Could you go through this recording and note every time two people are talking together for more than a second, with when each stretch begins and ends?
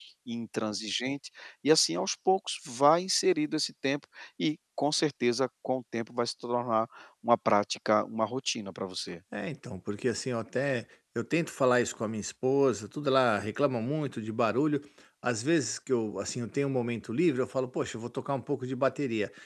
none

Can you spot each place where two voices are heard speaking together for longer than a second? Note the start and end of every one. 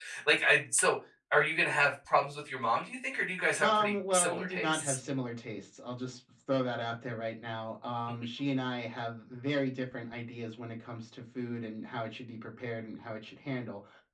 3.6-5.0

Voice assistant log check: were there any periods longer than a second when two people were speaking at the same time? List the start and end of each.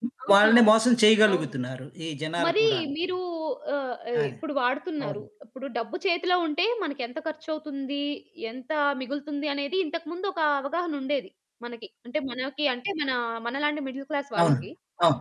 none

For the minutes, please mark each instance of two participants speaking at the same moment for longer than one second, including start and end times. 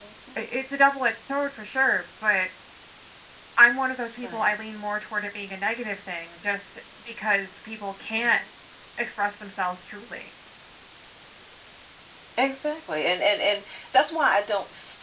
none

